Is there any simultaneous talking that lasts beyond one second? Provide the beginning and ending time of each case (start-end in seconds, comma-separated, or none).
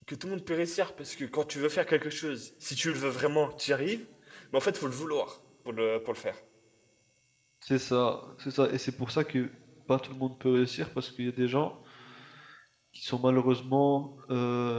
none